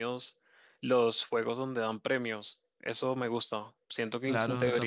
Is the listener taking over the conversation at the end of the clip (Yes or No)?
No